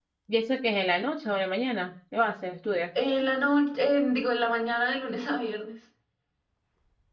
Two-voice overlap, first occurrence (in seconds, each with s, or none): none